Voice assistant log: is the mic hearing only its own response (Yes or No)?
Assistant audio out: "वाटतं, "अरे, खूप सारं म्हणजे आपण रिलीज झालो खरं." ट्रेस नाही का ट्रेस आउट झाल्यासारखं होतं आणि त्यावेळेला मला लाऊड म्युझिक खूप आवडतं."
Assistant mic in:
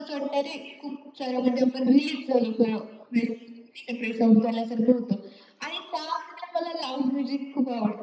Yes